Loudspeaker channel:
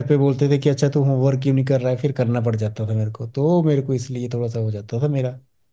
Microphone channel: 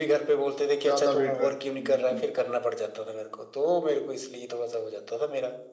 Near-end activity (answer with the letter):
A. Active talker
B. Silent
A